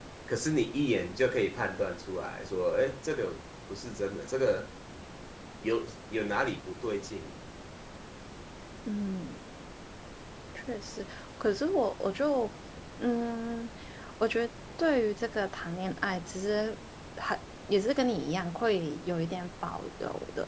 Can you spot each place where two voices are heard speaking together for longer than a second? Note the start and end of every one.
none

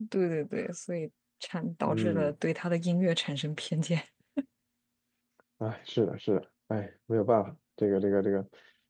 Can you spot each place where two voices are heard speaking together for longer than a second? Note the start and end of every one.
none

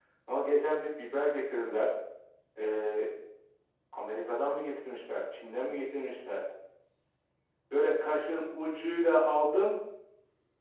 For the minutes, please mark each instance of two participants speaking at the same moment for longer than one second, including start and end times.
none

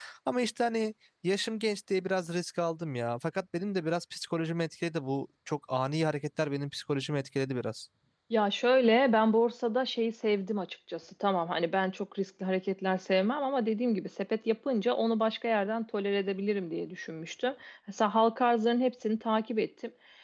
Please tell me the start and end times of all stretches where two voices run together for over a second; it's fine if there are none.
none

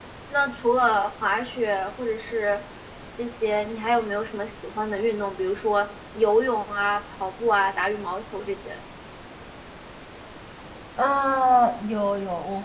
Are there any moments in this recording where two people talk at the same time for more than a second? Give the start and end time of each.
none

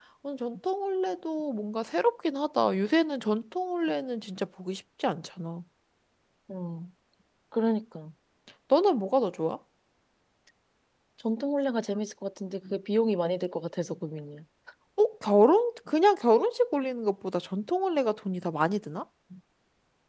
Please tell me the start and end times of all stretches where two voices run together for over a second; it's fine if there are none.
none

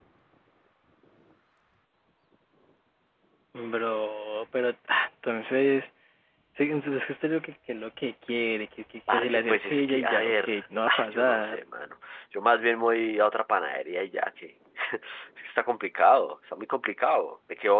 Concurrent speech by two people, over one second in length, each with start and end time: 9.1-11.6

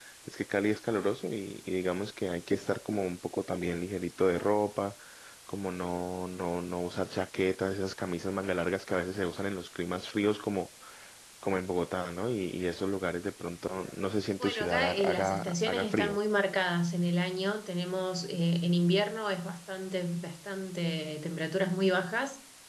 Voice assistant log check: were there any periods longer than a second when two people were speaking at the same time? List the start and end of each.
14.4-16.2

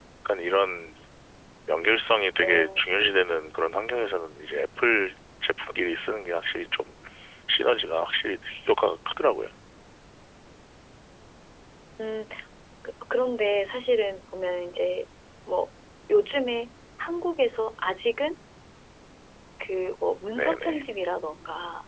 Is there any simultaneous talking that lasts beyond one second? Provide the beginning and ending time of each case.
none

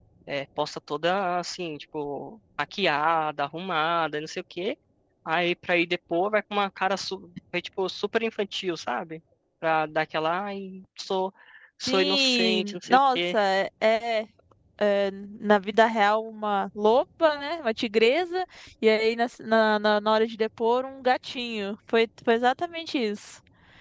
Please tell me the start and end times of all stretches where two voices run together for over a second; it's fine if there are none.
11.9-13.4

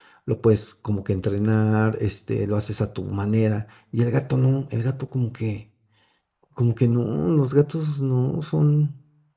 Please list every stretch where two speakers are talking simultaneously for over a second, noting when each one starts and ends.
none

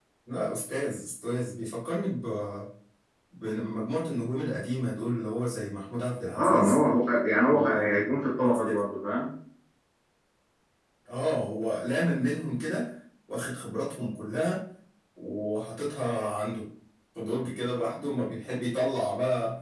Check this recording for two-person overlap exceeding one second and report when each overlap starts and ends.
none

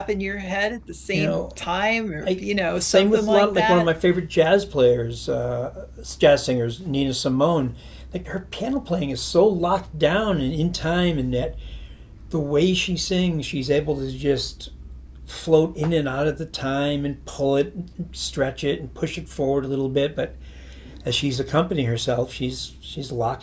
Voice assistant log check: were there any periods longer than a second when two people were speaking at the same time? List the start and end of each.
2.2-3.9

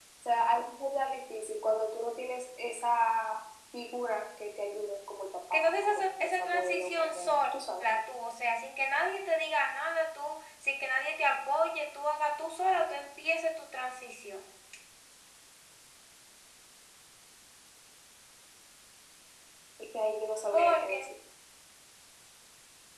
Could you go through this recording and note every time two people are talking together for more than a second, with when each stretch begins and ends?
5.5-7.3

